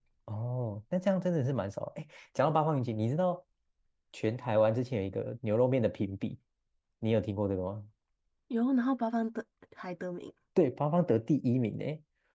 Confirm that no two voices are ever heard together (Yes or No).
Yes